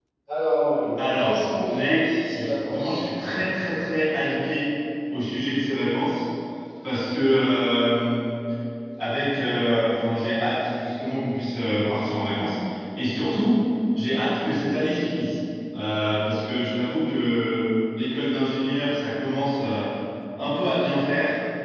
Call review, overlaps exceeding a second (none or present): present